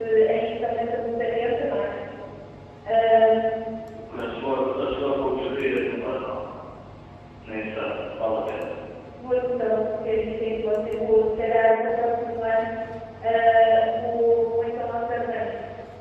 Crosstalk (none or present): none